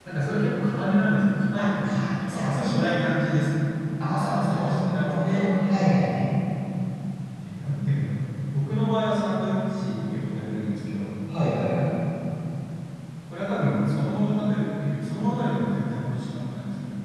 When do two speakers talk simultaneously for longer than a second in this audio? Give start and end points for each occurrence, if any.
1.6-2.9, 4.1-5.5

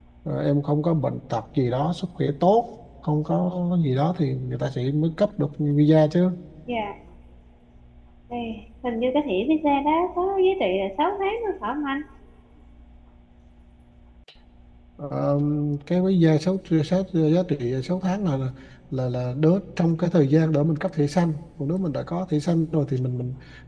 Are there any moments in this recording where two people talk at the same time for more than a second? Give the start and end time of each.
none

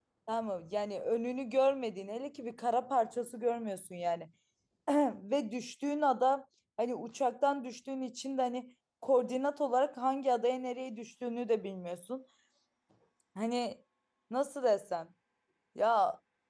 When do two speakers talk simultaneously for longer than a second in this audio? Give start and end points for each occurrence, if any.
none

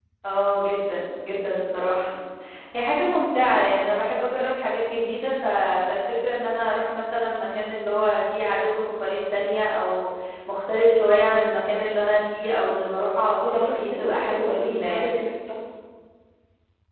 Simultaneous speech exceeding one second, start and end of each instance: 13.4-15.2

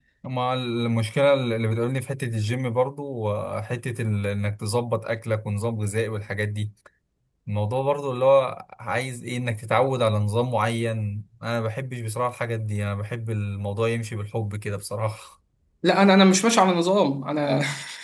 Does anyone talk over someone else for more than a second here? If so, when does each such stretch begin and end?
none

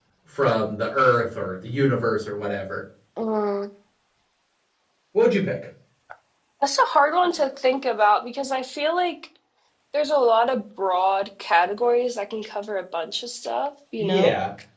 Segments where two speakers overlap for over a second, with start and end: none

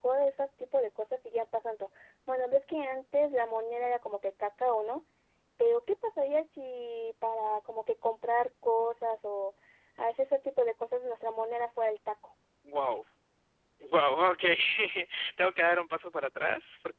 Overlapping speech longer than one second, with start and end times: none

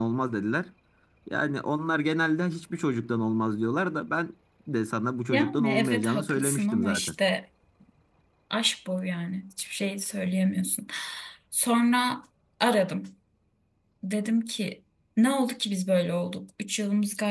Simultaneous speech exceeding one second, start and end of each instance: 5.3-7.1

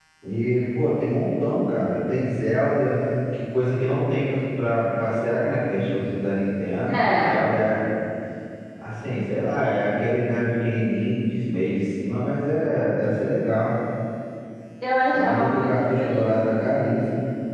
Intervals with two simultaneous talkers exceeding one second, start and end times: 15.1-16.6

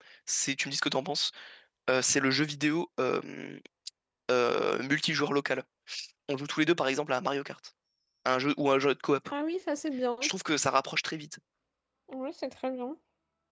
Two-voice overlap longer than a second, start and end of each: none

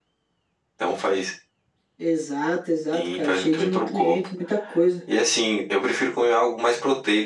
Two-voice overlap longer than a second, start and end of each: 2.9-4.2

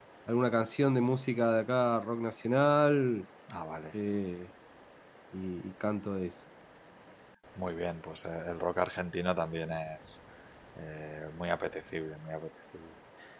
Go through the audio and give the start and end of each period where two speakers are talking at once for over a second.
none

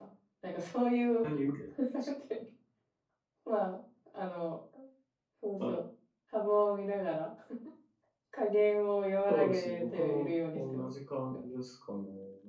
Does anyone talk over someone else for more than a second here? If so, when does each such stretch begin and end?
9.3-10.9

